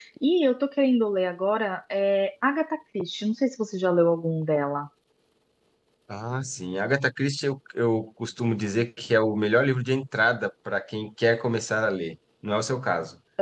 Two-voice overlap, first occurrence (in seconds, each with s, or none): none